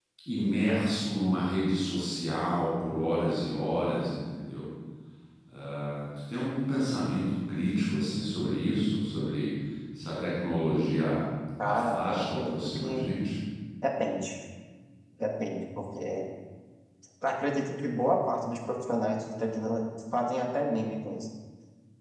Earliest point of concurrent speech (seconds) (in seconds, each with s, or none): 11.6 s